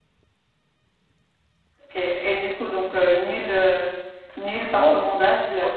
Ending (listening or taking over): taking over